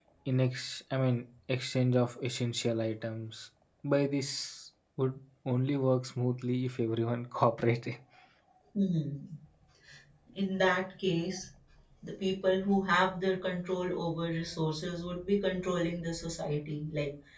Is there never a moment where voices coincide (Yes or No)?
Yes